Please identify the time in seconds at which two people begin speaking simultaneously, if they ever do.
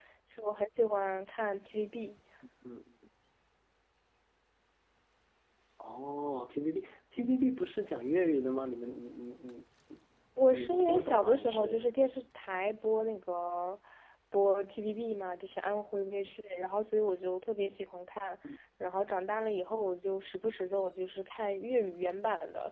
10.5 s

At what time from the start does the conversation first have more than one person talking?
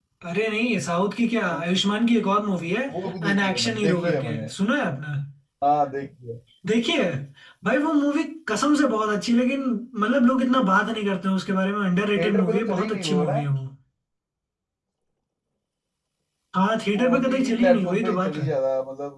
3.3 s

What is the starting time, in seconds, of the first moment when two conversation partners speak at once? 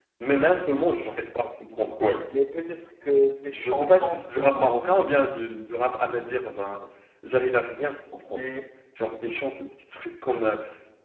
3.6 s

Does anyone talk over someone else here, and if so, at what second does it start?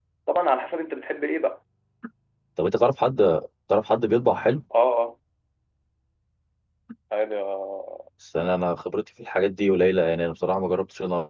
none

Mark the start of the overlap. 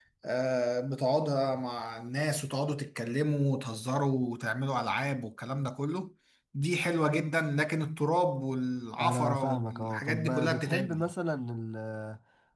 9.0 s

